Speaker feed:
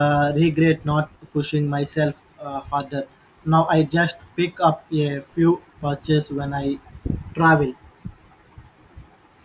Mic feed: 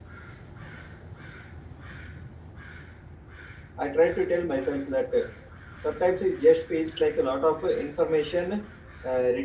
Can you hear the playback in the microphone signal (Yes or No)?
No